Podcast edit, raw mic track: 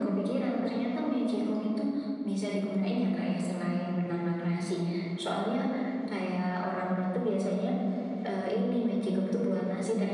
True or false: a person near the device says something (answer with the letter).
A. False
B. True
A